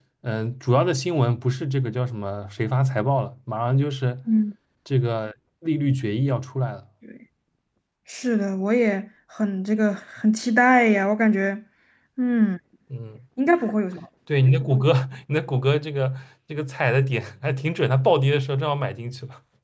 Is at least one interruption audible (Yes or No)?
No